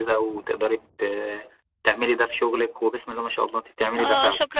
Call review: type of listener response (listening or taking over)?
taking over